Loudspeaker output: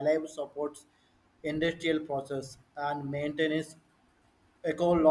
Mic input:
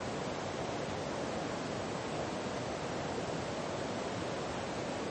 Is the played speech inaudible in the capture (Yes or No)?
Yes